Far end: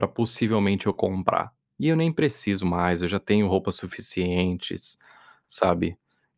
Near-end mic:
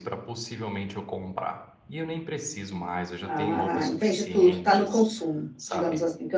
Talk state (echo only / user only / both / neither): both